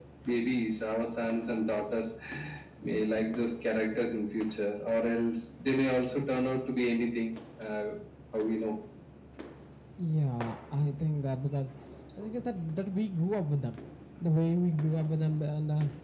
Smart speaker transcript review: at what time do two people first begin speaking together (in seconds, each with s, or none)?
none